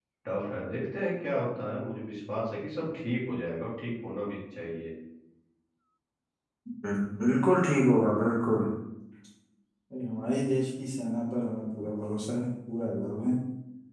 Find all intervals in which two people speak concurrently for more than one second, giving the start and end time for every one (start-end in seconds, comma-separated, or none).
none